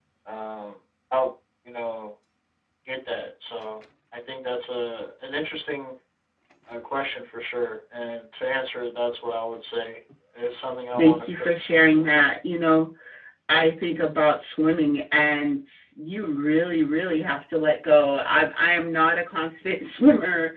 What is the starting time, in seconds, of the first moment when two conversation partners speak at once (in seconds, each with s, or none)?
10.9 s